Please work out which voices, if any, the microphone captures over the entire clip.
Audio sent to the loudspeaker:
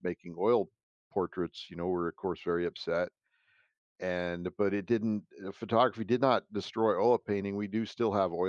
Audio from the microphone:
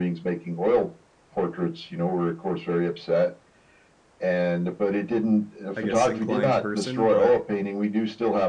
both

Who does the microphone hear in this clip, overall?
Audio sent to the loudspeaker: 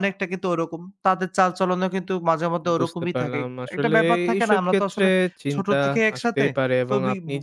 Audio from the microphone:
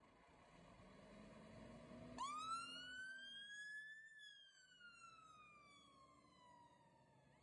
neither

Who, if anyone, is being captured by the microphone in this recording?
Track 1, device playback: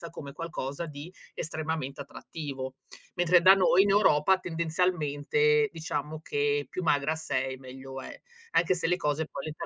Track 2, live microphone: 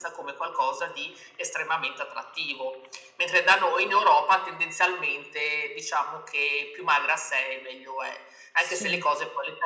both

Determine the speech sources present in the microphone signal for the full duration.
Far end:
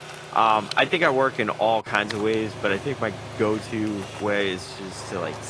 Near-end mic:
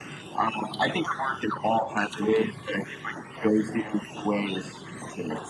echo only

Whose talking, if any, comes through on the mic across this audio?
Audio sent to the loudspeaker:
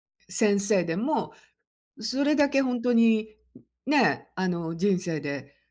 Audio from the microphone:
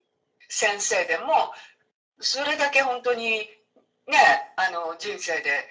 echo only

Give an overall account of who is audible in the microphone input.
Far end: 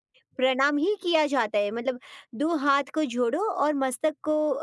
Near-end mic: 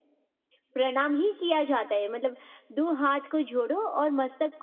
echo only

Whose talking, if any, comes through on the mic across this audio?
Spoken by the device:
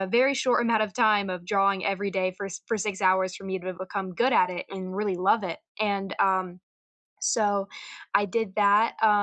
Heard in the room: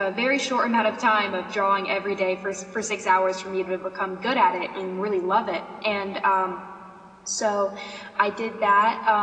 echo only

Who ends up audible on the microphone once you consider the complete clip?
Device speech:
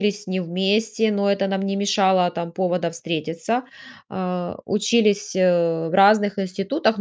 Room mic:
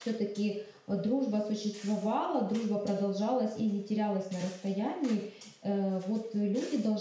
user only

